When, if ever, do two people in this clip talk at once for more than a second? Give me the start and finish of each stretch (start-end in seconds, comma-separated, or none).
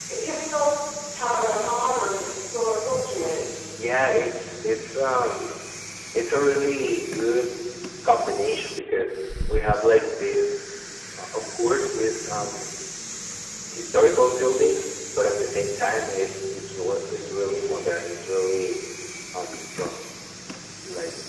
none